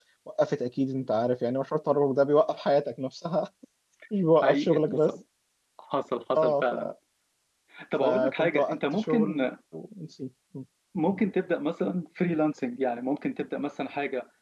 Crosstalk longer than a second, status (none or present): present